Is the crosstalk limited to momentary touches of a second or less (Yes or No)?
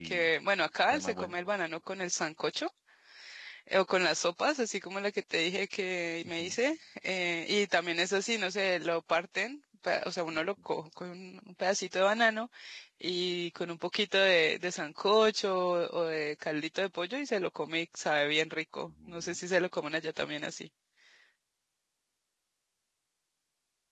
Yes